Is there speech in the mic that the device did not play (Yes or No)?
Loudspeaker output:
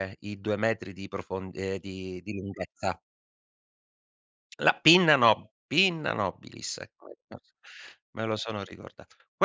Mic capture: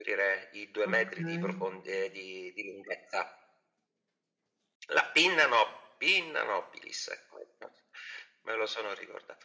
Yes